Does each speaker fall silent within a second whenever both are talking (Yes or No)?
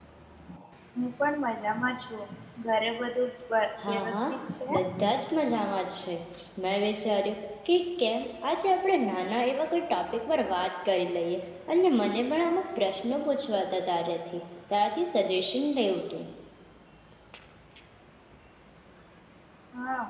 Yes